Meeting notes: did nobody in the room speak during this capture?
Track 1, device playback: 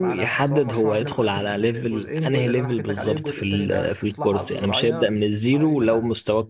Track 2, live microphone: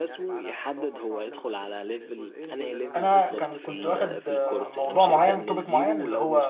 No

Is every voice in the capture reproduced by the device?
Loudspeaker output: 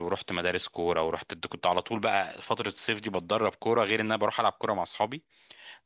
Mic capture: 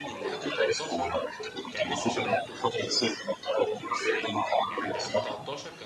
No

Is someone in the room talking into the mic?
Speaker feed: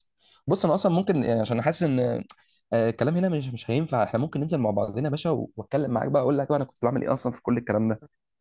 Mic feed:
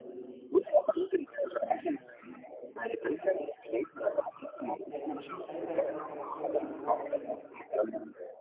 Yes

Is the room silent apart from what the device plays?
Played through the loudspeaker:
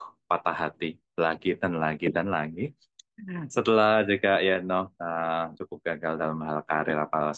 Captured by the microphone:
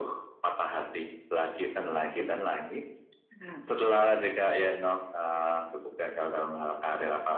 Yes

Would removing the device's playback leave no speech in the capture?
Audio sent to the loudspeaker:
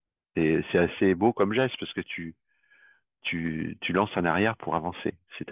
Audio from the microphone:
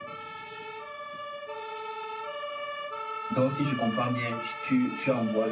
No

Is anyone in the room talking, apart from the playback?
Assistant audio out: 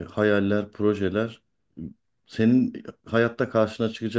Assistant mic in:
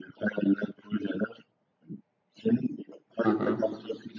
Yes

